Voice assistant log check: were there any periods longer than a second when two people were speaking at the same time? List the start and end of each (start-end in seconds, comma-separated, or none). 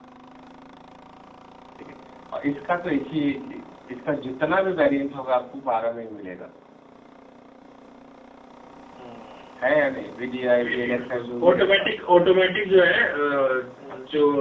10.5-11.9